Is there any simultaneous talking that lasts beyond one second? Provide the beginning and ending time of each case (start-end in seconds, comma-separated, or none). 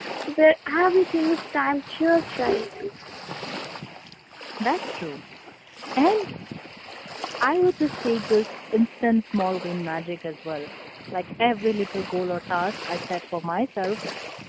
none